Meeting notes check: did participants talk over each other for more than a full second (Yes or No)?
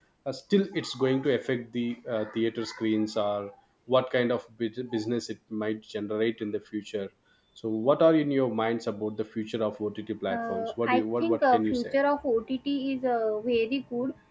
Yes